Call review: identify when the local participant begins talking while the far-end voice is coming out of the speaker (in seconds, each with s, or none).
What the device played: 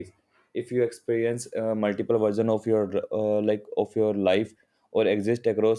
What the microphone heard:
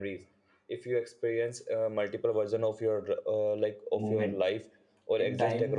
3.9 s